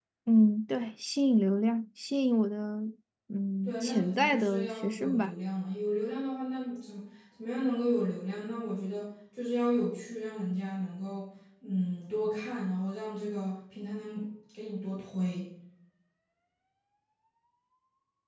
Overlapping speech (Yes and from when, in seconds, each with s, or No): Yes, from 3.6 s